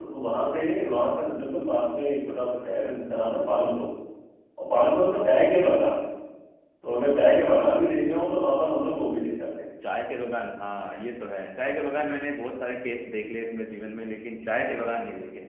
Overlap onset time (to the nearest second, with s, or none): none